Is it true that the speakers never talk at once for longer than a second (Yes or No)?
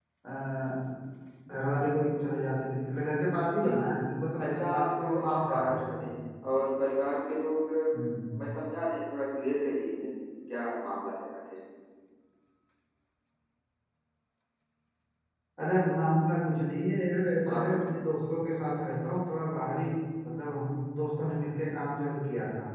No